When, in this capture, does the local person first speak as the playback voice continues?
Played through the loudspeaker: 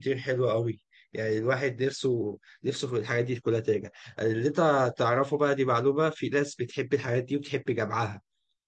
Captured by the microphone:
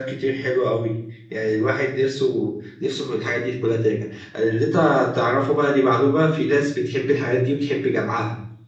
none

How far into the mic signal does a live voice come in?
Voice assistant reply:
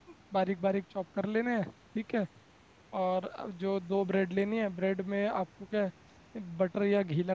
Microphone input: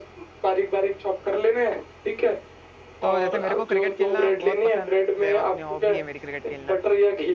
3.0 s

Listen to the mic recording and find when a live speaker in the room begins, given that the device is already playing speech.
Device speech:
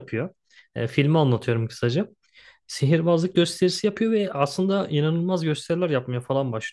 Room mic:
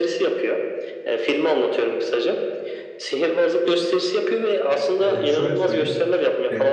5.0 s

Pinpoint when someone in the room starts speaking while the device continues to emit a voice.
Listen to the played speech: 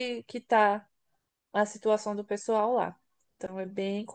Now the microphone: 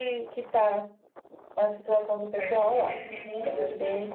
2.4 s

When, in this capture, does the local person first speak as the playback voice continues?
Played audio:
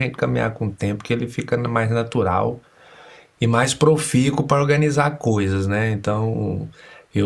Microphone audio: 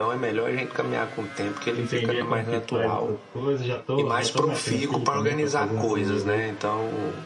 1.7 s

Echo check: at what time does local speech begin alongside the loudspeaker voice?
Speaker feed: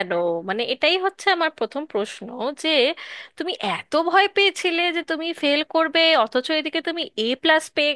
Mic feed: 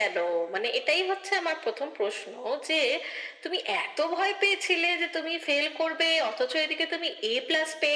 none

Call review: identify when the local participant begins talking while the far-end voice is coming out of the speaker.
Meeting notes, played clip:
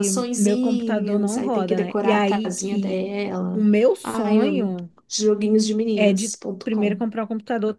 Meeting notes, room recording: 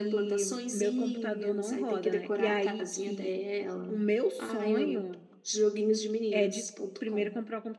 none

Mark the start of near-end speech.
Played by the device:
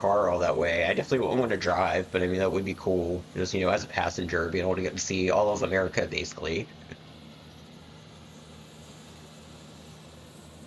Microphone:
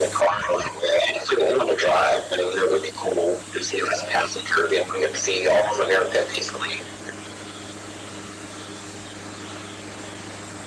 none

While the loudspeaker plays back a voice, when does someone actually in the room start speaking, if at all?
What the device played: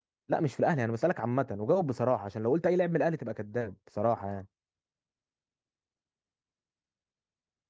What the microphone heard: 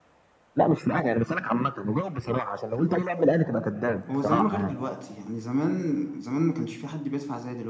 4.1 s

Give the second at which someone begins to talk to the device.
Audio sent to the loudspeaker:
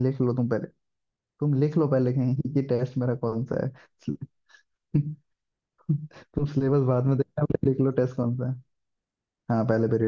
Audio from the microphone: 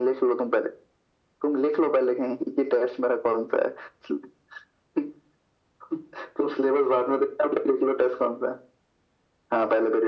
none

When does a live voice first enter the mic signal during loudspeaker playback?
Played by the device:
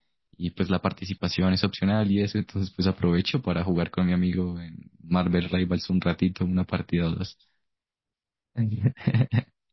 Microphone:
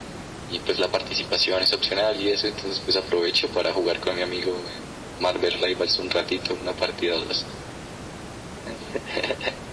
none

